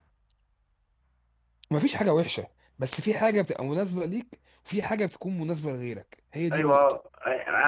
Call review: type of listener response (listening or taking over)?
taking over